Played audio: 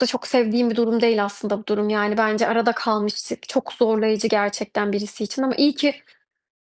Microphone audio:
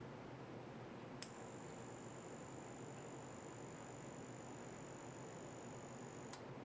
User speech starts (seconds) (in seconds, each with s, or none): none